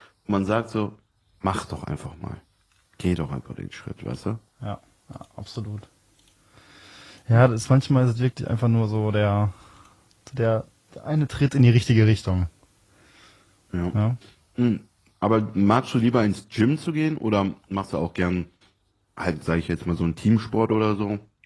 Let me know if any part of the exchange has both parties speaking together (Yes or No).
No